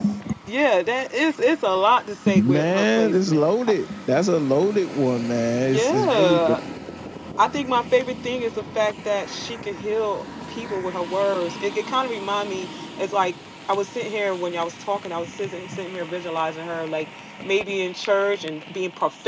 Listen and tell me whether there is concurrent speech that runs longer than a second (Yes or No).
Yes